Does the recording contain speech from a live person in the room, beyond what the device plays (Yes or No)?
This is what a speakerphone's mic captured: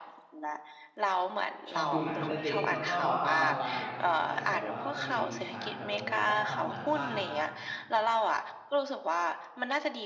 Yes